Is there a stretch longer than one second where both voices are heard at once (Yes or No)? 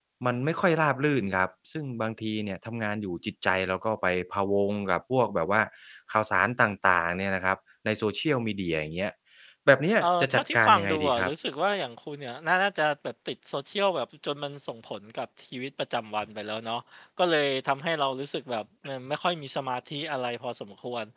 Yes